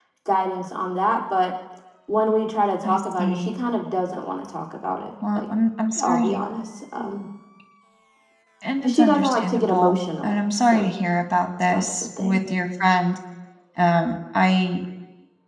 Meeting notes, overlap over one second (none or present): present